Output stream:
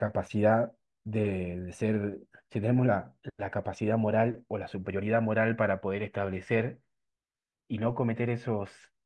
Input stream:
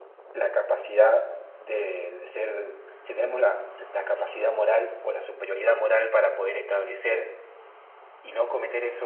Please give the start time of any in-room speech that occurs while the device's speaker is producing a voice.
none

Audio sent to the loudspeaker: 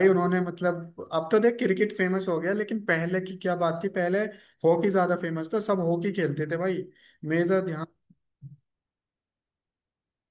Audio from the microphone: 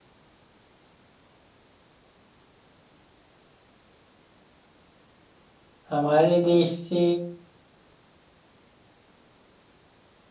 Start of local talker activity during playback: 5.9 s

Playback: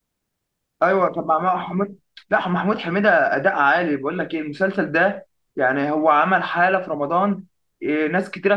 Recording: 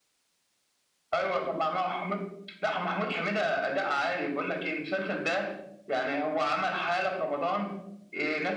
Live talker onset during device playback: none

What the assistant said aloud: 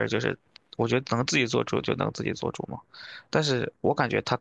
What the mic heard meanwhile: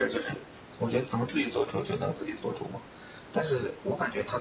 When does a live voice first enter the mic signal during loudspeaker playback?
none

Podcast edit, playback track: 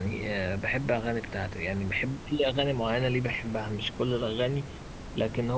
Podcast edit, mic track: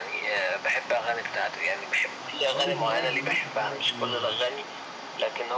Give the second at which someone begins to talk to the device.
2.2 s

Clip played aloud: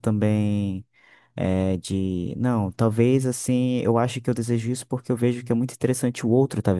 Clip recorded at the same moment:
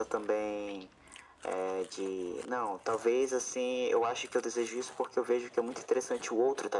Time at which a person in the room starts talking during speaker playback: none

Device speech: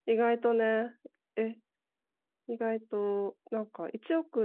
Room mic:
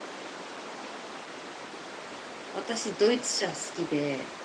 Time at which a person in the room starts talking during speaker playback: 2.5 s

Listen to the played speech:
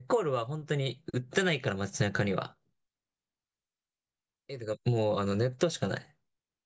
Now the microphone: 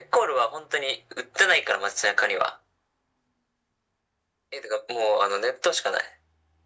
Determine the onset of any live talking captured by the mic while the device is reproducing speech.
none

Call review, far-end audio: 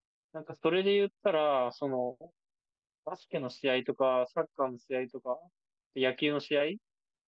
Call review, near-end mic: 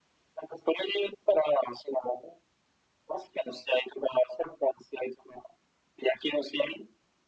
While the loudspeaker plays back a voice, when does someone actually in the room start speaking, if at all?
none

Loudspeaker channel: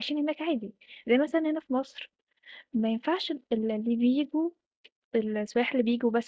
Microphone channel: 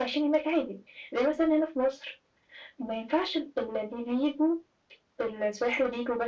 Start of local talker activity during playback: none

